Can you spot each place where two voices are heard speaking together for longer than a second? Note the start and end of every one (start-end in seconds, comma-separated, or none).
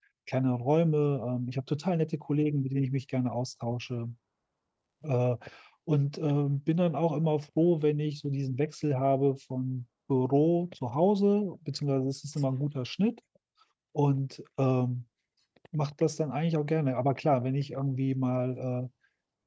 none